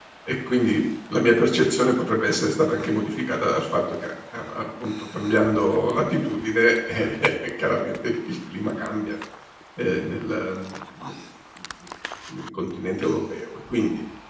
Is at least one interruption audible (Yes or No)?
No